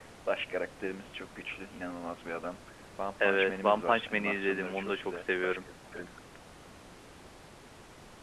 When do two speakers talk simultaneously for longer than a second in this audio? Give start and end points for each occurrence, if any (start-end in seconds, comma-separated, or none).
3.2-5.6